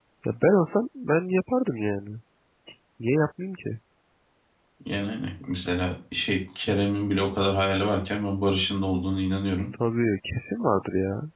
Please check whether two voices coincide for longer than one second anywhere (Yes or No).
No